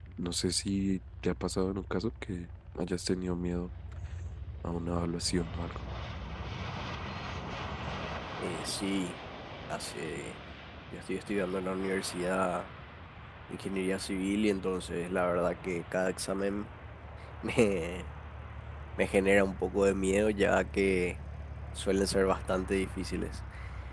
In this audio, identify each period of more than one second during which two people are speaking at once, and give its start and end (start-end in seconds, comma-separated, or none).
none